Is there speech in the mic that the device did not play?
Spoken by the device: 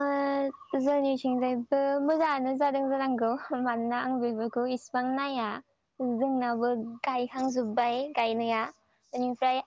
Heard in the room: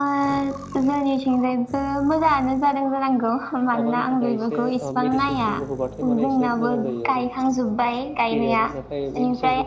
Yes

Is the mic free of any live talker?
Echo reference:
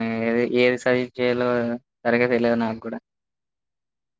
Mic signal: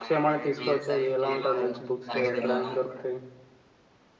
No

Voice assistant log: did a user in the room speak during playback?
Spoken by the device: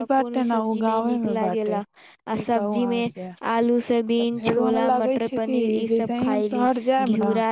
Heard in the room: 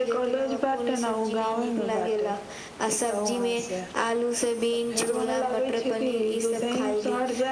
No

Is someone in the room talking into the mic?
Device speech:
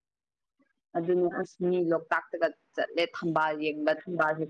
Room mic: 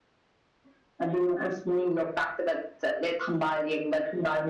No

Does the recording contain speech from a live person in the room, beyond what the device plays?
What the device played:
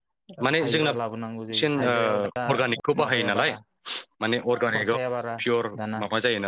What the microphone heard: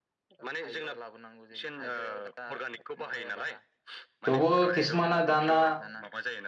Yes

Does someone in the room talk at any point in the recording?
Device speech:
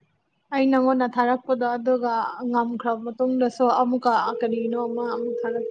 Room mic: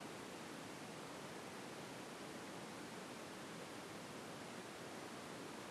No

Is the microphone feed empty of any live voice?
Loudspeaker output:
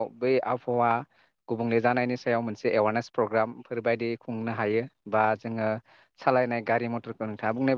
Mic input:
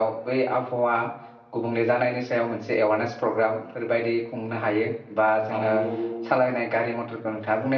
No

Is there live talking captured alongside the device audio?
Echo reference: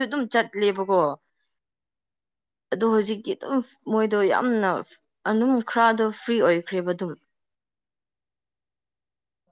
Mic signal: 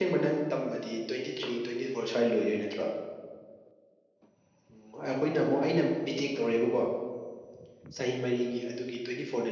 Yes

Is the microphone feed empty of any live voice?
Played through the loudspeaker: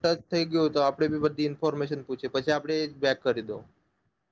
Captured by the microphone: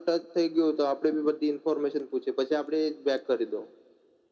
Yes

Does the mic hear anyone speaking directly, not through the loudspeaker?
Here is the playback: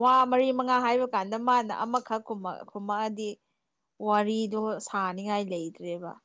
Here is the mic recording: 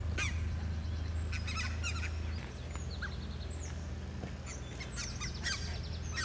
No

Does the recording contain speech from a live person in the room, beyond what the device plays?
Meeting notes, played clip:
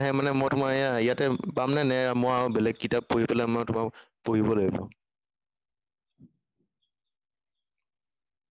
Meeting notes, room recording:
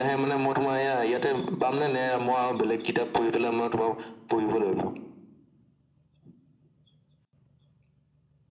No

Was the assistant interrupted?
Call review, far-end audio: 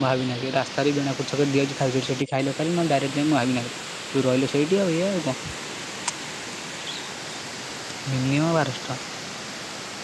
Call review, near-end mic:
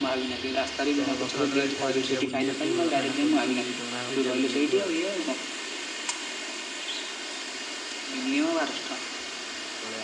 Yes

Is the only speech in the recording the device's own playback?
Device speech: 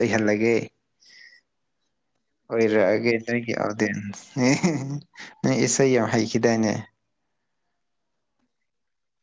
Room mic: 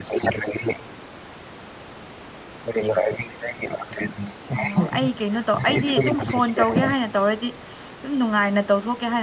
No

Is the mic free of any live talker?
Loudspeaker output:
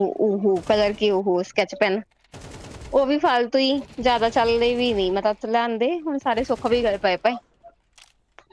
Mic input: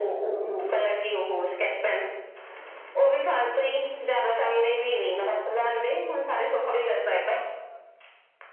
Yes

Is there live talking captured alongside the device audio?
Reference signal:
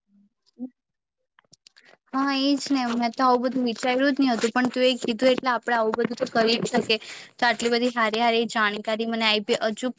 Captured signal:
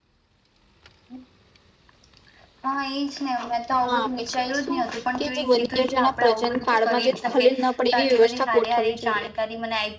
Yes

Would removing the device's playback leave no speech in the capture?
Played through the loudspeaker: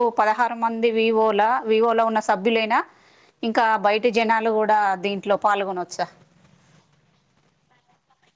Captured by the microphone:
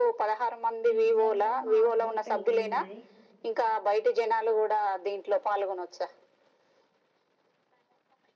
No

